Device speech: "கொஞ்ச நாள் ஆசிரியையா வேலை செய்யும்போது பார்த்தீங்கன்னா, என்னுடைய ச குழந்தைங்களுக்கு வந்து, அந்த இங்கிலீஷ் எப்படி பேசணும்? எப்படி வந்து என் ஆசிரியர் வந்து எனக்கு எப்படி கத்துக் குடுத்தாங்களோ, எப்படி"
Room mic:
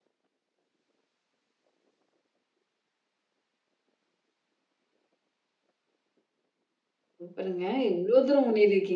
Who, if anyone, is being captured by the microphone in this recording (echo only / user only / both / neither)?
user only